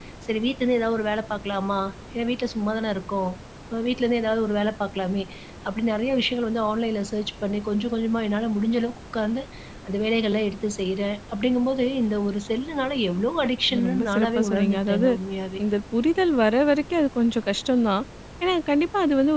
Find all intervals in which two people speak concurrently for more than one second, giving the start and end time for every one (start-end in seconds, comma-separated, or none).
13.9-15.1